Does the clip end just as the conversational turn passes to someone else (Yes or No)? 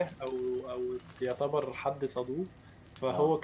No